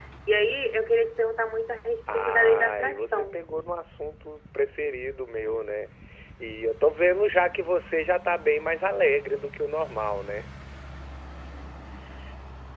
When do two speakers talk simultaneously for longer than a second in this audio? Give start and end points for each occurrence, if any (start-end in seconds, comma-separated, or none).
2.1-3.4